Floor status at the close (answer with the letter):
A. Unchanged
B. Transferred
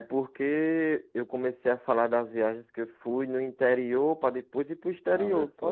B